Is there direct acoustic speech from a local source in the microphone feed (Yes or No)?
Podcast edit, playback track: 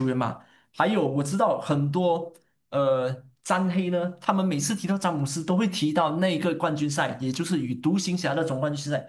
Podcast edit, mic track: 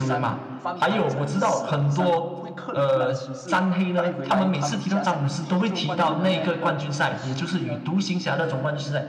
Yes